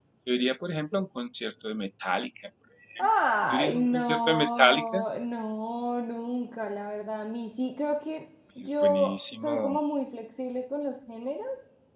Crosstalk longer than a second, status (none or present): present